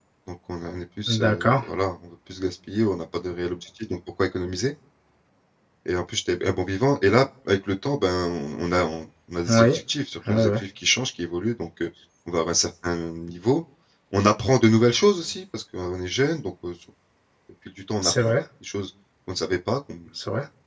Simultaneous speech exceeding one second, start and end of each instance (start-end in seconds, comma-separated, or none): none